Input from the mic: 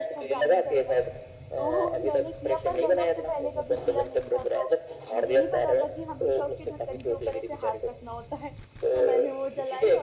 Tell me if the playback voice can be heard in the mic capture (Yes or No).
Yes